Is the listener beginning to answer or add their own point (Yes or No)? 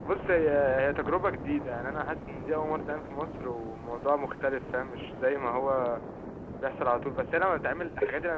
No